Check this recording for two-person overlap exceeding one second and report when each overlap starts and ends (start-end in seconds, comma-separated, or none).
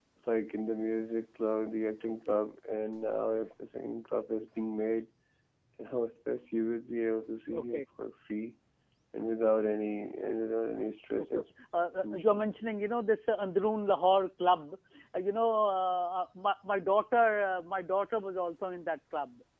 none